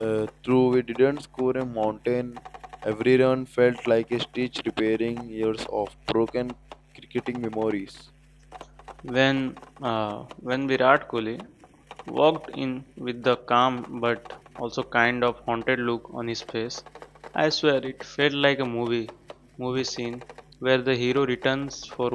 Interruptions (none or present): none